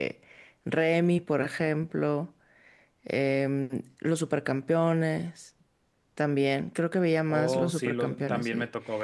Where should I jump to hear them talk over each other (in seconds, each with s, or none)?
7.3 s